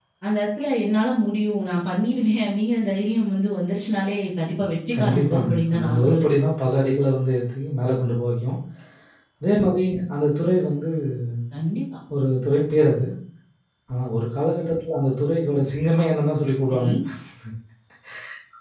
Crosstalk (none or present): present